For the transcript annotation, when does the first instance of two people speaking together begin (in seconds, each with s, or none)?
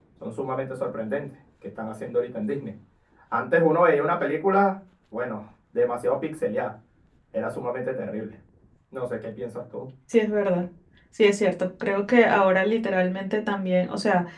none